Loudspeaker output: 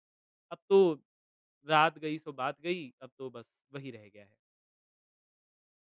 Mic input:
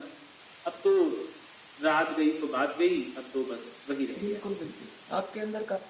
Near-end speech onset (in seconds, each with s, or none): 4.2 s